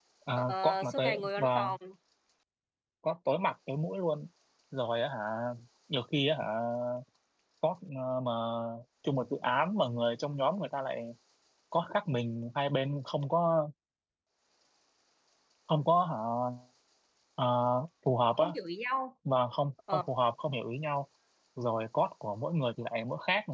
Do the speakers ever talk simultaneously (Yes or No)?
Yes